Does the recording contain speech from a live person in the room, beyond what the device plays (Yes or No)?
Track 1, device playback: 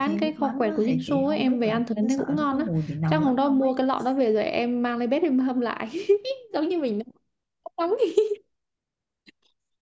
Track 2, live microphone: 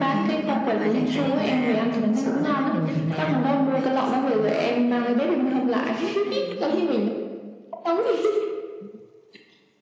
Yes